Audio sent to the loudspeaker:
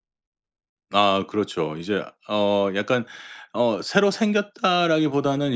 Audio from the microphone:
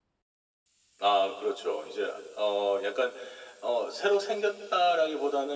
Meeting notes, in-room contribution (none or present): none